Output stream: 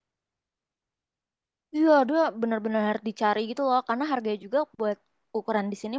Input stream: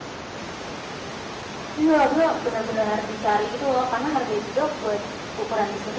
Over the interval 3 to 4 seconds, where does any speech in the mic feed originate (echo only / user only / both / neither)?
echo only